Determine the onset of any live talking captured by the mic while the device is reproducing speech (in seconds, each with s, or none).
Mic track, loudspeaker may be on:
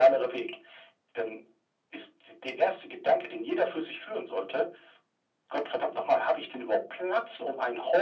none